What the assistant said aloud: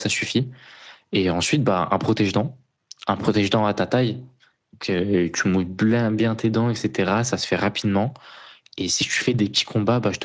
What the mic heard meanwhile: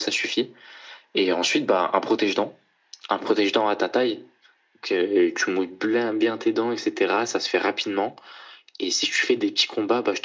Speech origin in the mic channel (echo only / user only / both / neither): echo only